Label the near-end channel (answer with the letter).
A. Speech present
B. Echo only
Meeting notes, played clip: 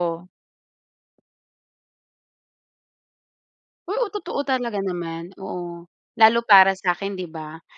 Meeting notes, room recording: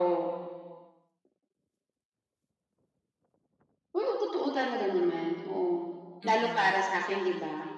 A